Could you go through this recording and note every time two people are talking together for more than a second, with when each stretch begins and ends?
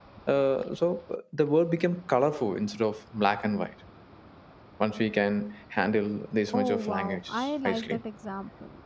6.6-8.0

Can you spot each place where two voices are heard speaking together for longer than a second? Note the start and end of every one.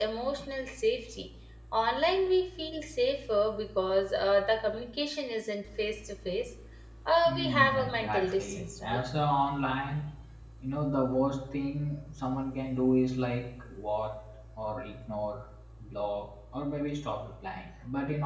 7.2-9.0

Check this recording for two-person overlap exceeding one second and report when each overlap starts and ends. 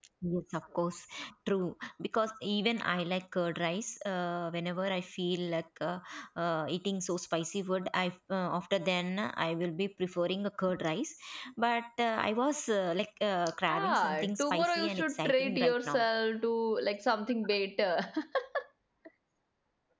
13.7-16.1

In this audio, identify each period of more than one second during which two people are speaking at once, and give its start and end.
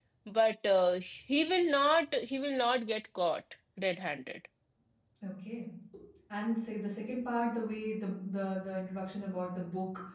none

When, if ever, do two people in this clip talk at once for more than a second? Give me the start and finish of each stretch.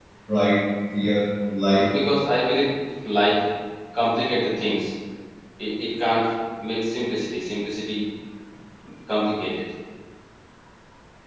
none

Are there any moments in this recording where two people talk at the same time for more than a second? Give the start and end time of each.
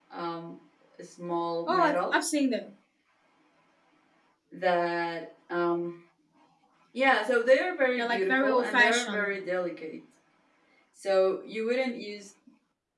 8.0-9.3

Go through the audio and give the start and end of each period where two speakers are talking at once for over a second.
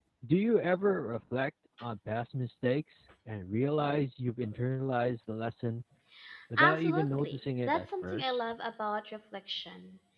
6.6-8.4

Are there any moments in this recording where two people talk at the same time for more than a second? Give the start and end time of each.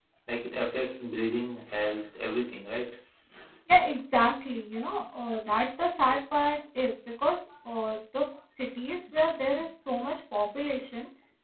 none

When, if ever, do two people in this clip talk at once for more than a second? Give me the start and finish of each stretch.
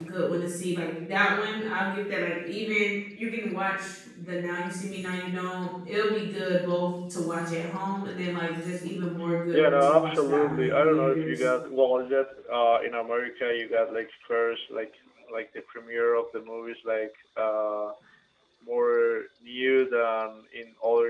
9.5-11.4

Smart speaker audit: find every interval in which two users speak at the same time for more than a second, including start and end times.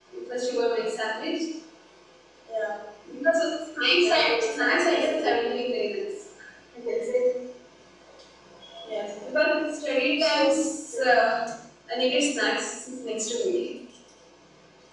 4.0-5.4

